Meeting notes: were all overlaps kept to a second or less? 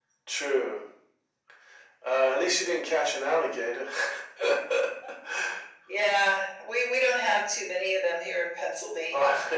Yes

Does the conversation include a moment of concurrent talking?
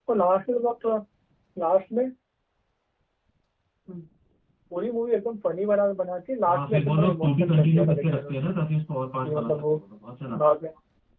Yes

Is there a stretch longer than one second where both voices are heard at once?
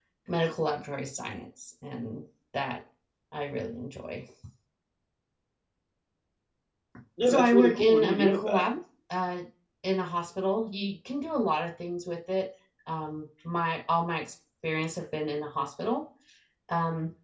Yes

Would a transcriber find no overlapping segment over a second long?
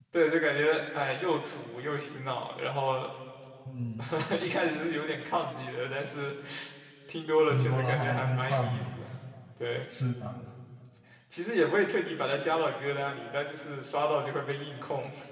No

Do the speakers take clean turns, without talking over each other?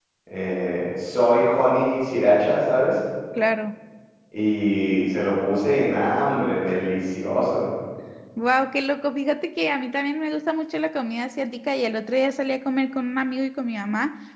Yes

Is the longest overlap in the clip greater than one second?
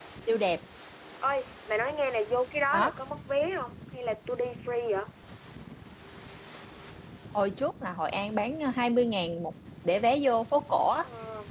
No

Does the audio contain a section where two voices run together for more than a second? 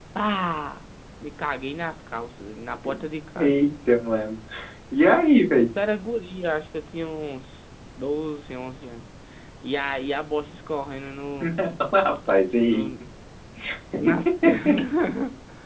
No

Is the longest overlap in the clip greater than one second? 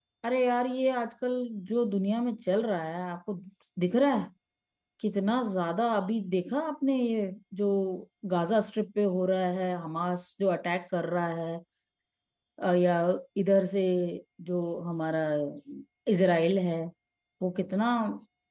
No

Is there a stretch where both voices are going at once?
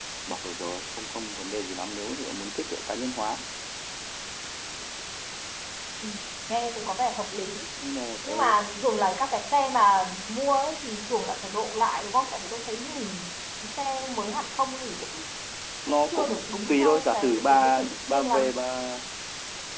Yes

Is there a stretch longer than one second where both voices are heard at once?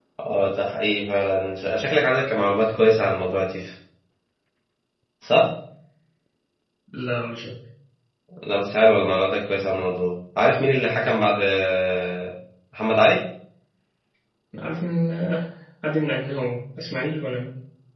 No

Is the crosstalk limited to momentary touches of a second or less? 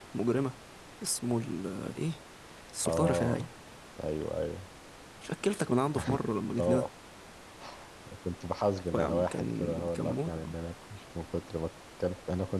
No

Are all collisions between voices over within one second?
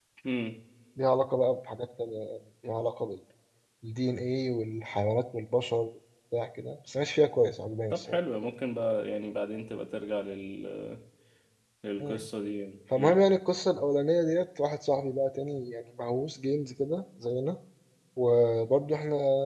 Yes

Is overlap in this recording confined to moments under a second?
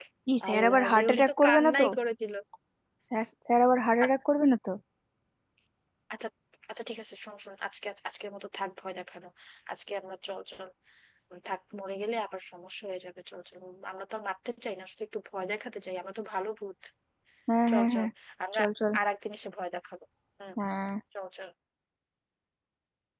No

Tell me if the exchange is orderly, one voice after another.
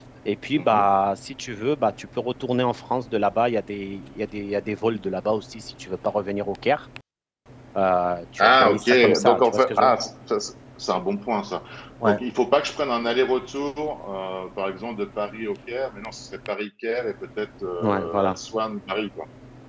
No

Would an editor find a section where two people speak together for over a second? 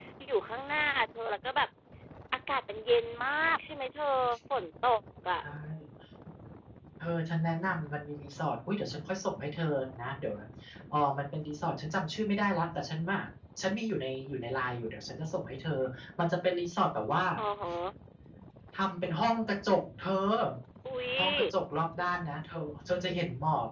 No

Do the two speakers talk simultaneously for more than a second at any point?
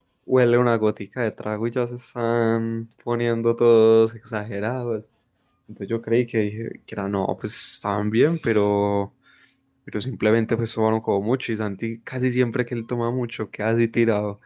No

